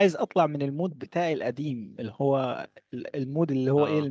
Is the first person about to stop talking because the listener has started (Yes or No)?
No